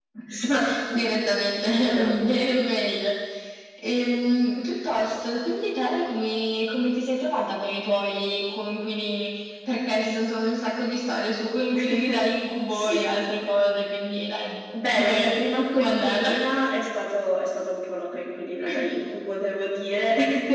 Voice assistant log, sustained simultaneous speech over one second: present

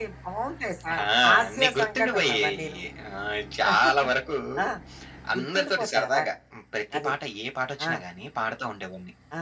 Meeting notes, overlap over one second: present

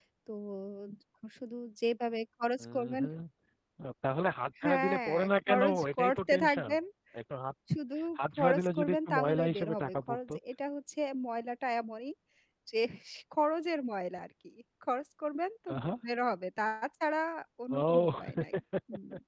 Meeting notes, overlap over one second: present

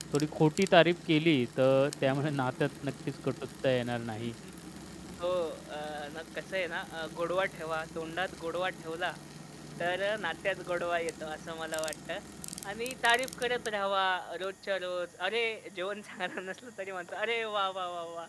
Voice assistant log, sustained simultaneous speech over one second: none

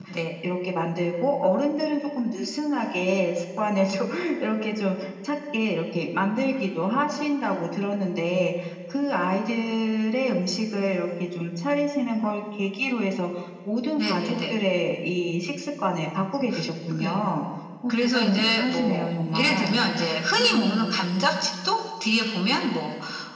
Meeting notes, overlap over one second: present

